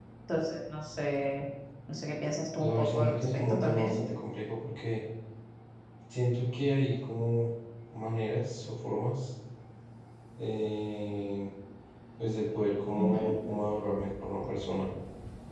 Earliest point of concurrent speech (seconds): 2.6 s

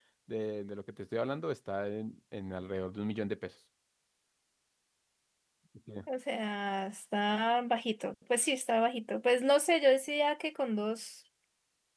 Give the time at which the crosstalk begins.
none

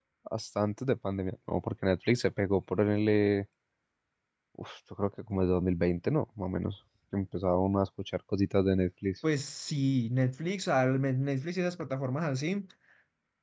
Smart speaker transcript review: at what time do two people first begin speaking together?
none

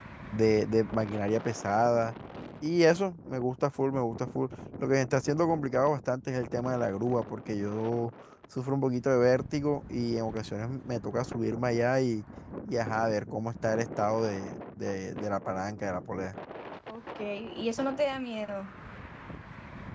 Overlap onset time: none

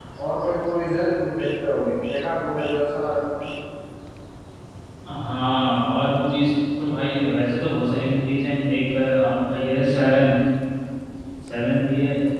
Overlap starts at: none

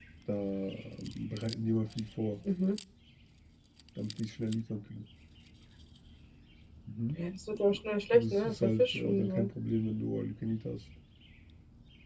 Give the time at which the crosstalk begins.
8.1 s

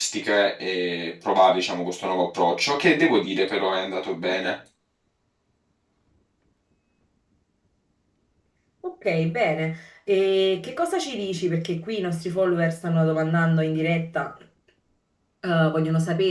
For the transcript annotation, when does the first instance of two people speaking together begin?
none

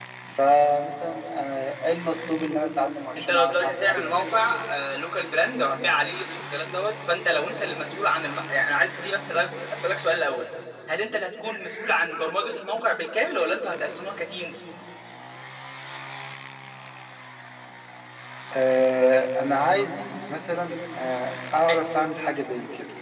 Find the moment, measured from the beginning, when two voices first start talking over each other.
3.2 s

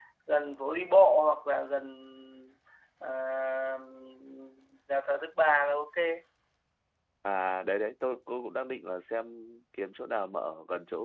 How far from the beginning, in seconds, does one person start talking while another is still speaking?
none

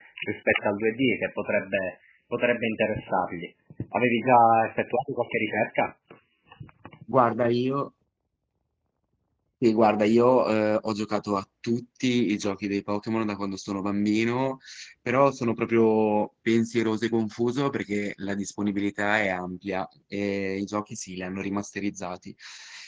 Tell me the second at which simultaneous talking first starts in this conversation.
none

